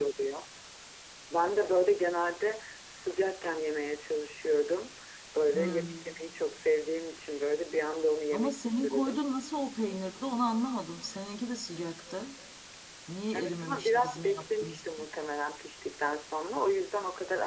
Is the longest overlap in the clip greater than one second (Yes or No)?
Yes